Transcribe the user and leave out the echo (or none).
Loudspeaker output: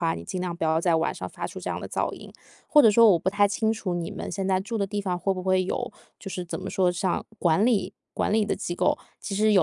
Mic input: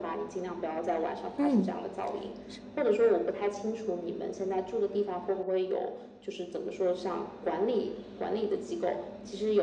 嗯。是